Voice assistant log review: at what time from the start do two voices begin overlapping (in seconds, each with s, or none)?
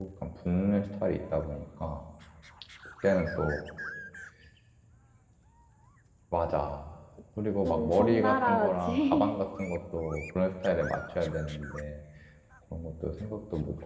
7.6 s